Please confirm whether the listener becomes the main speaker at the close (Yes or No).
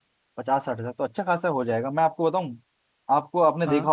No